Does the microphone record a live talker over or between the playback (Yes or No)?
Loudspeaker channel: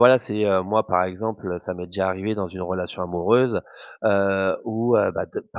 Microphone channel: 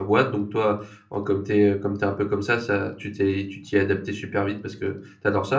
Yes